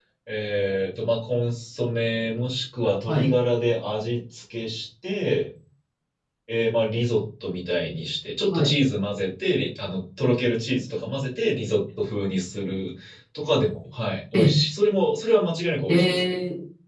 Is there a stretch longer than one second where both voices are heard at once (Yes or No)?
No